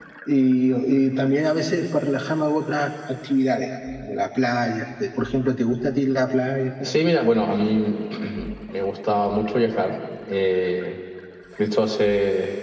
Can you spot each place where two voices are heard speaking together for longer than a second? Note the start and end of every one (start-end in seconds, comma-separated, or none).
none